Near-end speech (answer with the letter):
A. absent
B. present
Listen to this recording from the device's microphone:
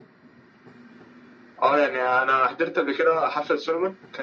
A